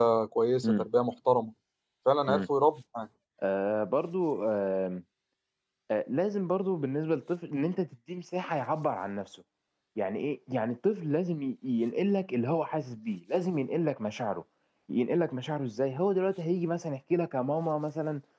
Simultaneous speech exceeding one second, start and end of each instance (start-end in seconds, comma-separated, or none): none